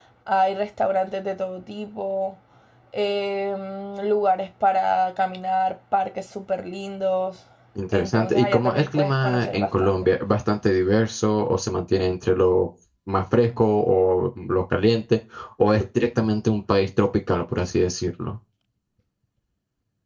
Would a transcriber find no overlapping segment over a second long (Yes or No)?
No